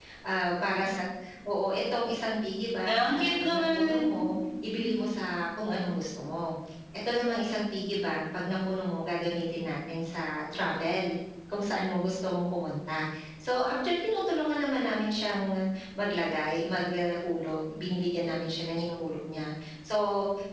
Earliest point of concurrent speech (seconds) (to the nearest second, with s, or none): 3 s